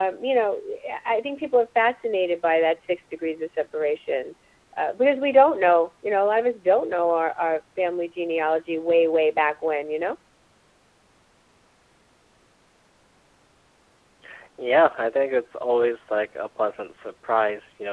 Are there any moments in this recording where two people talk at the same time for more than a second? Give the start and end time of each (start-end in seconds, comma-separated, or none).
none